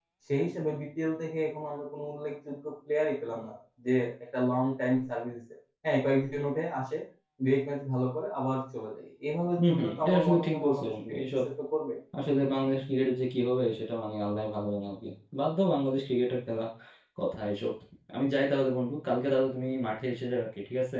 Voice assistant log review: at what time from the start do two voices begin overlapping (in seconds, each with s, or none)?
9.6 s